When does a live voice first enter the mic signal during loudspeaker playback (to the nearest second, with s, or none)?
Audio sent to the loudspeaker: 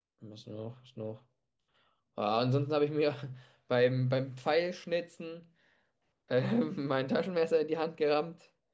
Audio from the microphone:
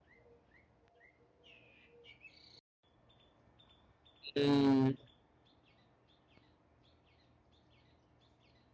4 s